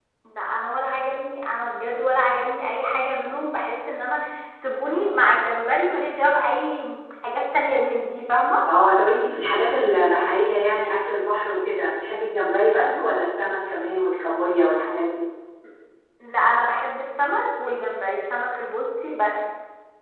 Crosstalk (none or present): none